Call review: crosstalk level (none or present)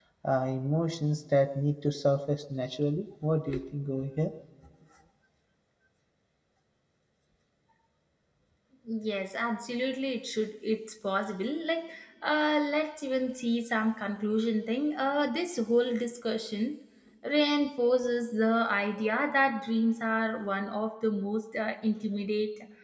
none